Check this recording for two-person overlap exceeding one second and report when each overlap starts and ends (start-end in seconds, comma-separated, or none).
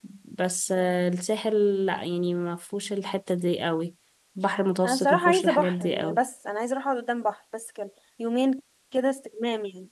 4.8-6.2